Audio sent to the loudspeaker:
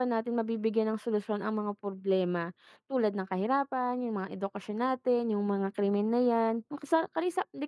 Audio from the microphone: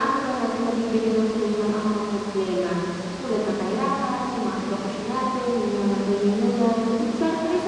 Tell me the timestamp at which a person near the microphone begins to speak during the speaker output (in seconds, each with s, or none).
none